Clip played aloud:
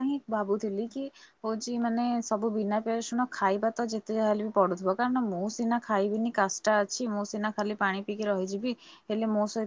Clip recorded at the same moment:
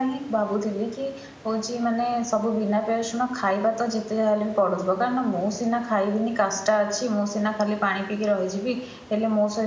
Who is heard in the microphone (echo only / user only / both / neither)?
echo only